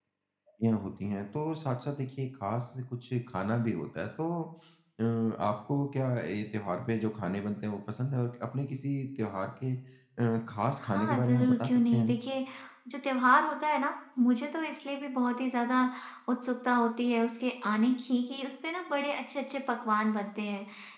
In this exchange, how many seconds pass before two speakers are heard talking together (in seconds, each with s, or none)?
10.8 s